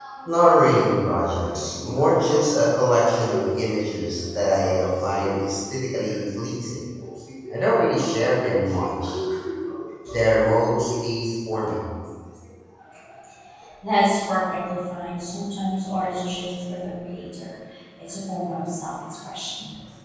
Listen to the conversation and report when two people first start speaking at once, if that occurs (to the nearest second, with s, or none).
none